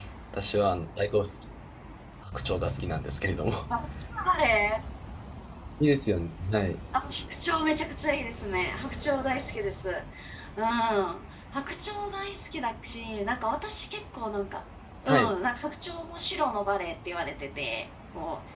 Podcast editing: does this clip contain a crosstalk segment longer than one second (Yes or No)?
No